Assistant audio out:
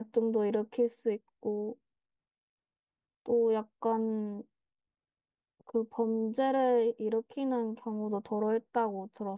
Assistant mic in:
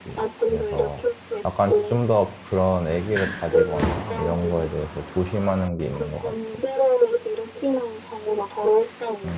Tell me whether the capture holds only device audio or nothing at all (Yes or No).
No